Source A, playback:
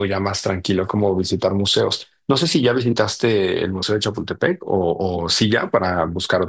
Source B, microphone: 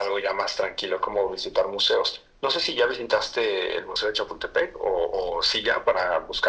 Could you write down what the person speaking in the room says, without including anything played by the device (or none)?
none